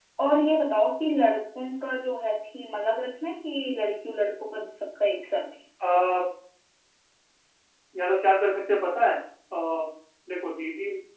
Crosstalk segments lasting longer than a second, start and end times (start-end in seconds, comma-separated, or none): none